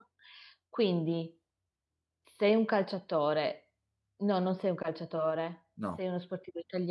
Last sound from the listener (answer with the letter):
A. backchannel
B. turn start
A